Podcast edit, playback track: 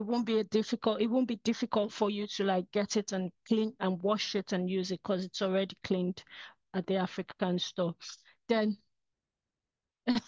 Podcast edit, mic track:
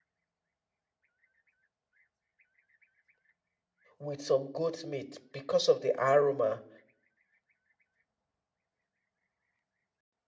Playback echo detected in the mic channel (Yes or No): No